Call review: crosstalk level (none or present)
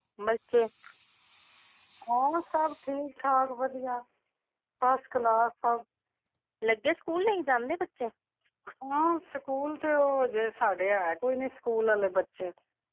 none